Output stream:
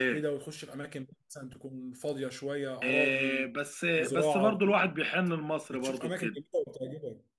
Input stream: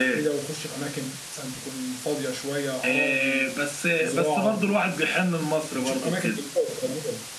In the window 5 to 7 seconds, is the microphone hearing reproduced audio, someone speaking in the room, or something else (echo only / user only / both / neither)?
echo only